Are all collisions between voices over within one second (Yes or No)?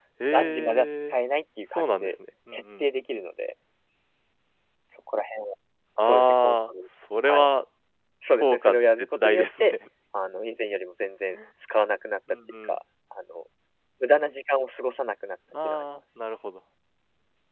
No